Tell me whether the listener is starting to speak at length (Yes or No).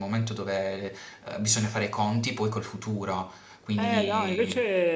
Yes